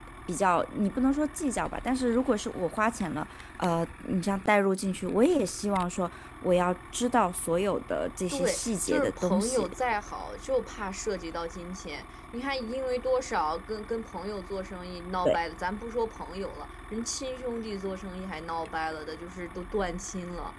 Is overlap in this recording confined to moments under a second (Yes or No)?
No